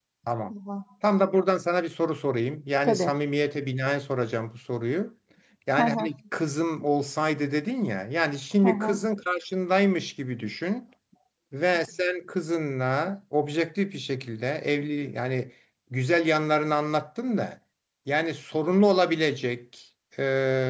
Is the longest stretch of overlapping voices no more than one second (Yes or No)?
Yes